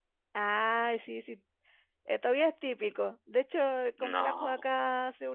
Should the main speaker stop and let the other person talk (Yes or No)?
No